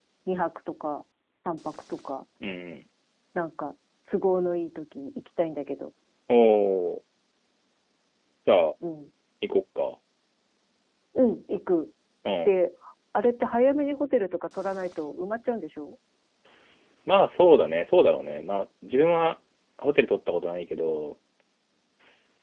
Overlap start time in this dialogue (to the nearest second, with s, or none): none